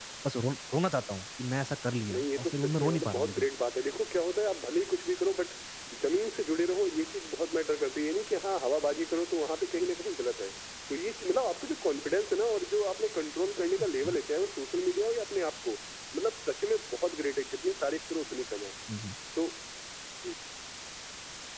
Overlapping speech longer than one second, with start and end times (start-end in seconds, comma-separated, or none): 2.1-3.5